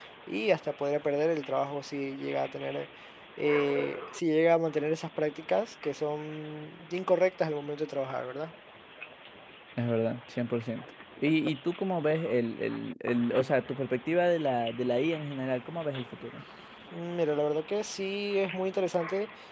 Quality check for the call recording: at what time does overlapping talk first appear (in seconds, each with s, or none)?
none